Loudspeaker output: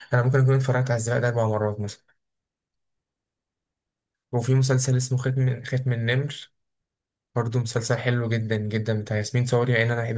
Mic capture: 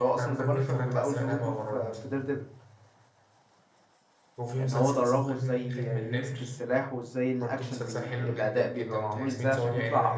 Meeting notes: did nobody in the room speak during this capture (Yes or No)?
No